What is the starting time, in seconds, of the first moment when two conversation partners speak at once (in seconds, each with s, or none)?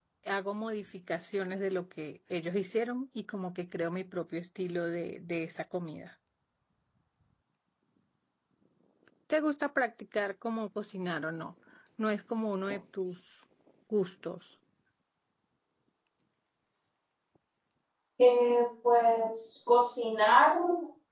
none